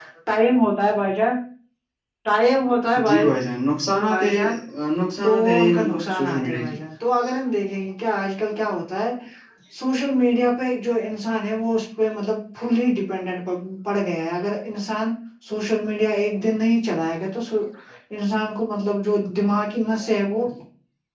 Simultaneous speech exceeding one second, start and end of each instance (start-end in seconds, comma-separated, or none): 5.2-6.7